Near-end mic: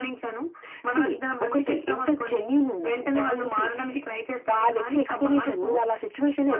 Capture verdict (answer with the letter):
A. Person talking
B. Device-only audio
B